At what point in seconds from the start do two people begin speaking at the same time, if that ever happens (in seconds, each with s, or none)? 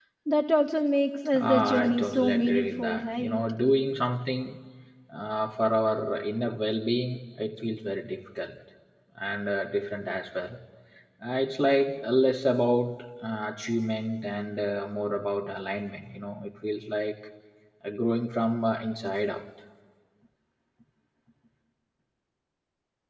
1.3 s